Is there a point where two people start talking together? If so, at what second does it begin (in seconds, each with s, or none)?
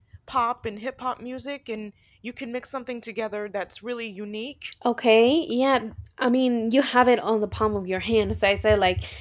none